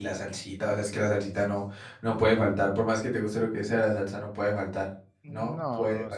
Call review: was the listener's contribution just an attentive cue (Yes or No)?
No